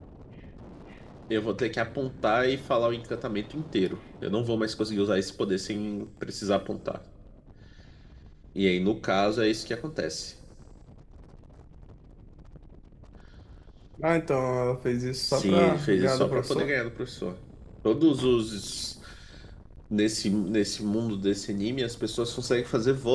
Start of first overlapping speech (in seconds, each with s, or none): 15.3 s